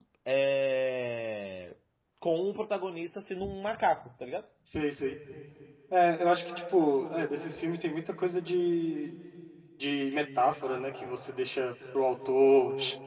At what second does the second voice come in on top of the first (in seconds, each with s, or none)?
none